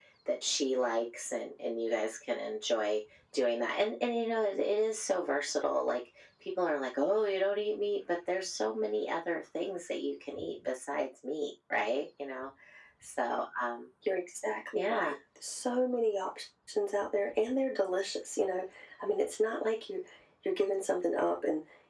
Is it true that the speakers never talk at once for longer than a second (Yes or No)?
Yes